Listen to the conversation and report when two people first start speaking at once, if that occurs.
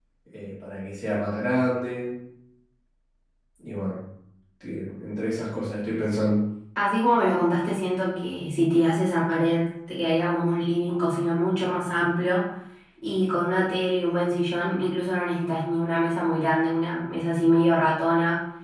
none

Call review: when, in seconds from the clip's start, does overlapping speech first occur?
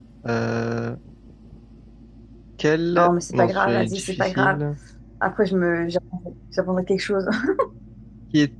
3.0 s

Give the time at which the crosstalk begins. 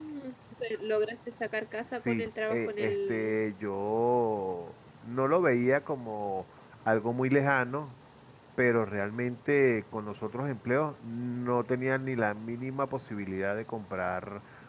2.0 s

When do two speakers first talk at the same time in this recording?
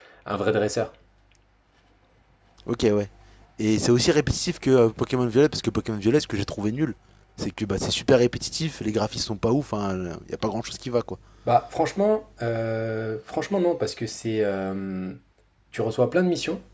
none

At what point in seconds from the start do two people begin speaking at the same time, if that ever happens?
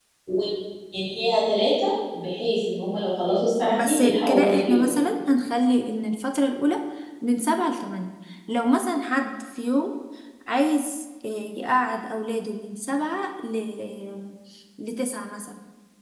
3.7 s

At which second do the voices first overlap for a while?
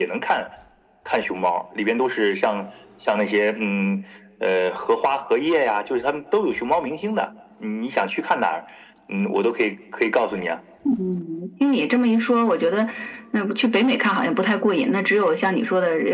none

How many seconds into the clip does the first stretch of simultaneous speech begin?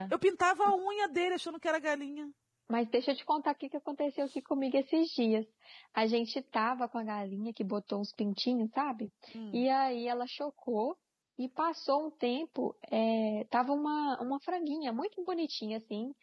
none

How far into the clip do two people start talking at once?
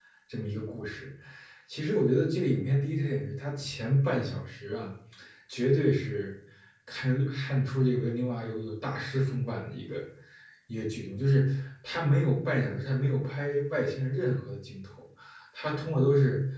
none

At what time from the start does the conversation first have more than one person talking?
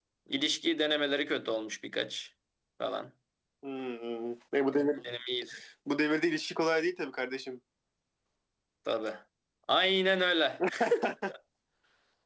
none

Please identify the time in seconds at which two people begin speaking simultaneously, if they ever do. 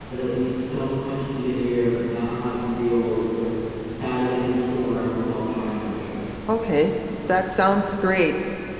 none

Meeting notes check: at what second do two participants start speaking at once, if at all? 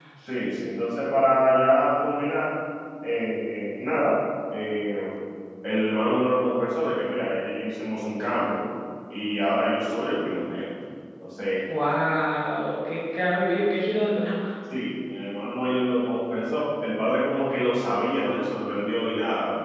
none

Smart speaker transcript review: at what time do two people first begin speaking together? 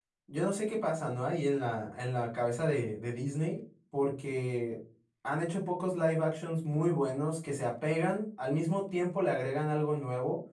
none

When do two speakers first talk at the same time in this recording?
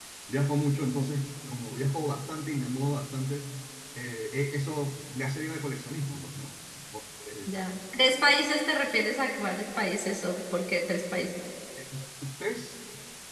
none

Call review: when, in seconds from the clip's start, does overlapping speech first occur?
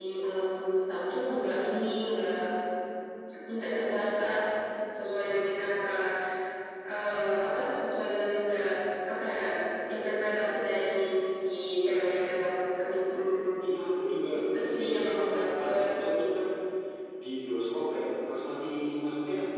14.4 s

